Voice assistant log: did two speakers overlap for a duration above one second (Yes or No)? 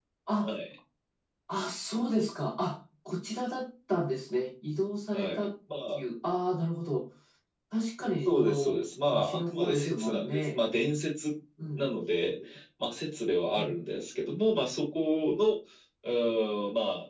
Yes